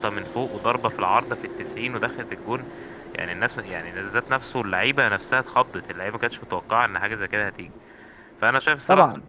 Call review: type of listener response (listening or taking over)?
listening